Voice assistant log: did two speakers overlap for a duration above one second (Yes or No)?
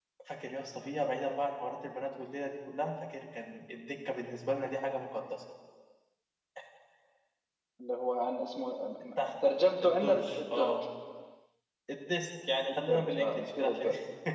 Yes